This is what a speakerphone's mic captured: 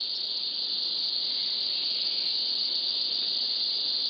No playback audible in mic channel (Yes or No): Yes